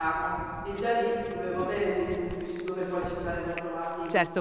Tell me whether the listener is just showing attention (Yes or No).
No